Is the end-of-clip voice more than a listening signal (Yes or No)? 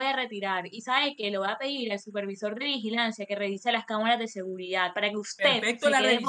Yes